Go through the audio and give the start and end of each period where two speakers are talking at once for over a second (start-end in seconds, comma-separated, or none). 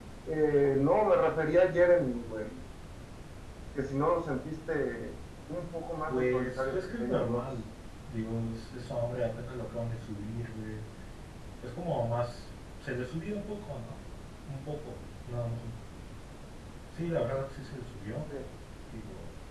6.1-7.5